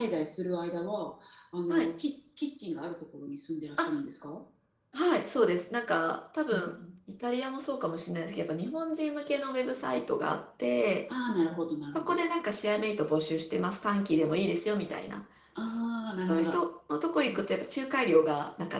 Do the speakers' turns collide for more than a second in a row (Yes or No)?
No